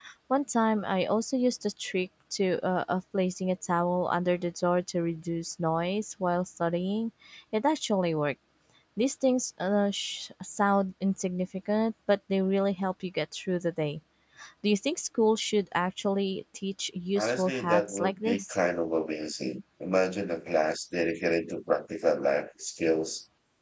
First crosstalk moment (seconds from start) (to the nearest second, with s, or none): 17 s